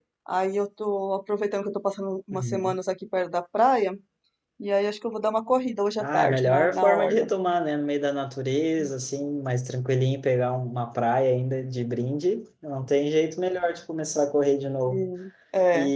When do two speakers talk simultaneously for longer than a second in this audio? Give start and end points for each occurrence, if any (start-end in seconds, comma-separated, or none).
6.0-7.3